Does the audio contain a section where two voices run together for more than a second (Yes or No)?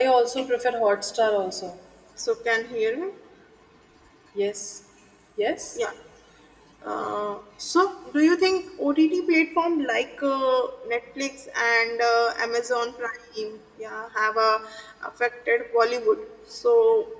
No